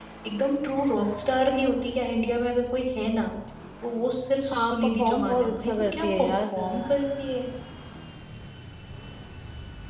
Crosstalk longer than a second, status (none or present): present